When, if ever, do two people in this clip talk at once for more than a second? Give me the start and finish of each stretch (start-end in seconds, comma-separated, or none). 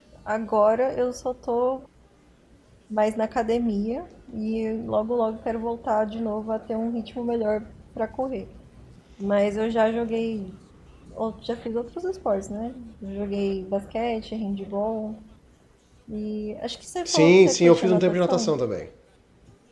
17.1-18.6